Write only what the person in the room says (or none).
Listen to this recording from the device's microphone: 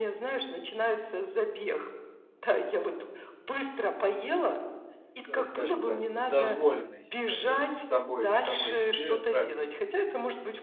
э, скажем так, дозволенной, э, тобой самой себе трапезы?